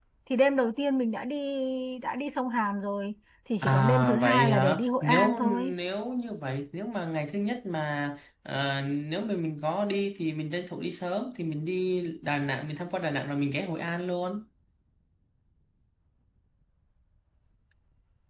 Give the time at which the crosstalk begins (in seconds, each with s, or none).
3.6 s